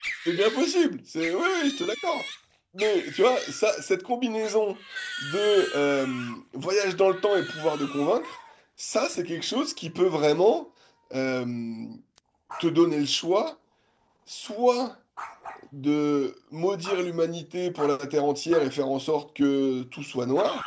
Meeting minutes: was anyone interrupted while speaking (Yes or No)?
No